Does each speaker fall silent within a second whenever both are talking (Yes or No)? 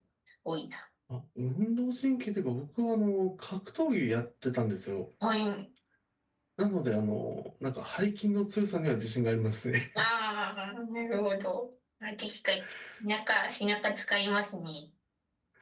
Yes